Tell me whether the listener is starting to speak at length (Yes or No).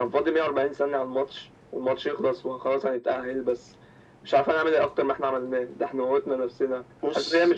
No